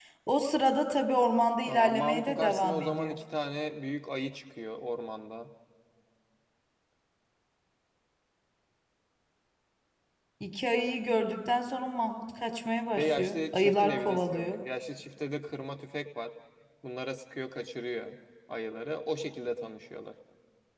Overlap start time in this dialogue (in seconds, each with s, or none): 1.6 s